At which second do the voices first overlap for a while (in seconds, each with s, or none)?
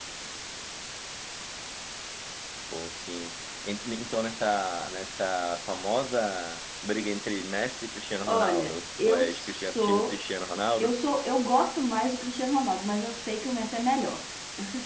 8.3 s